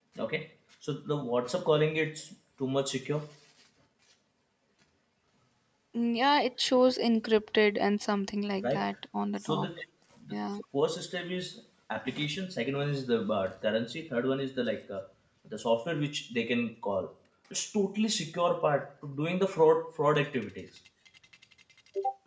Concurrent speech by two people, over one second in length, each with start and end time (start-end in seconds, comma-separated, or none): none